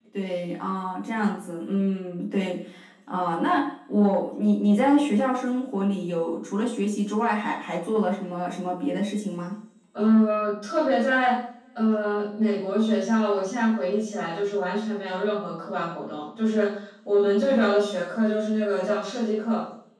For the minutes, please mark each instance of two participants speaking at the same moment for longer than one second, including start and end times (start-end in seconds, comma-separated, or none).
none